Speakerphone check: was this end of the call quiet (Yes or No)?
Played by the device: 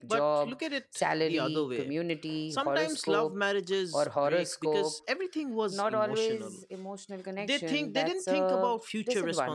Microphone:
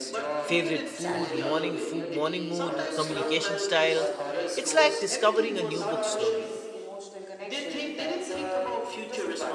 No